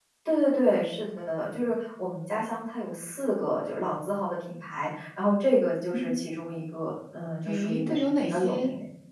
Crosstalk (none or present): present